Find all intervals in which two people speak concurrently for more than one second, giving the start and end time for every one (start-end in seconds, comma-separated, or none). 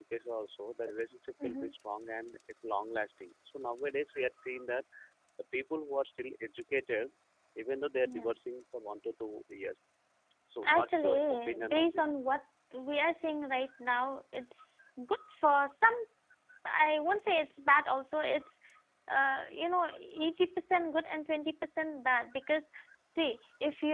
10.6-12.1